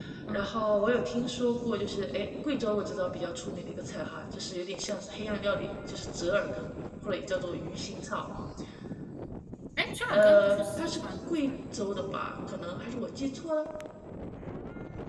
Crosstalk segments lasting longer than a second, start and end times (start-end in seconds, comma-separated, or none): 10.0-11.3